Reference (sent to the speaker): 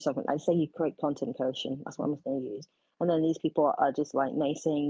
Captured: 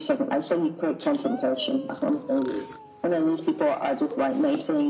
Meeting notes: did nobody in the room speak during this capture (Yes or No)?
Yes